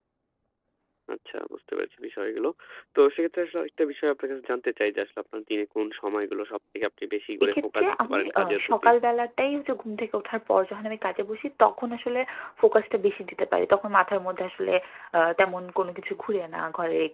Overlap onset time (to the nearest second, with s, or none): 7 s